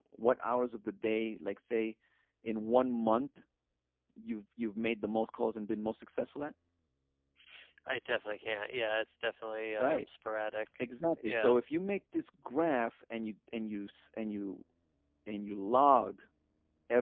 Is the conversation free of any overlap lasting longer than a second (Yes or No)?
Yes